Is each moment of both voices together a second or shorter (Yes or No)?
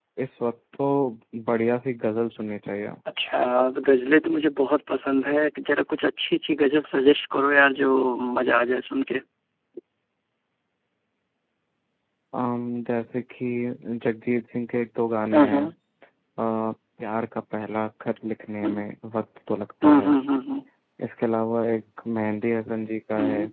Yes